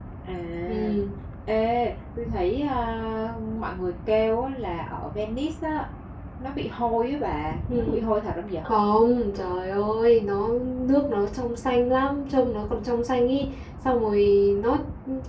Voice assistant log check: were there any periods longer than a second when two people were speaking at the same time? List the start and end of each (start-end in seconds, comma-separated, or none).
none